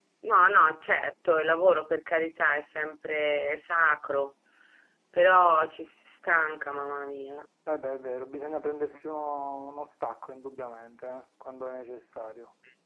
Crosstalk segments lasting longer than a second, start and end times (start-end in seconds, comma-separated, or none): none